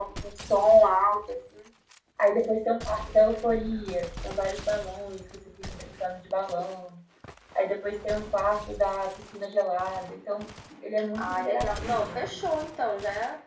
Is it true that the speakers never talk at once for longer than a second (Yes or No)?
No